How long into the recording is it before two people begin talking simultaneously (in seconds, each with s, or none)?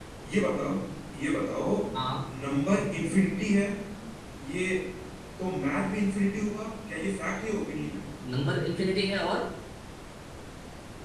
none